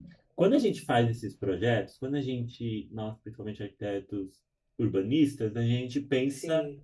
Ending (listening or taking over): listening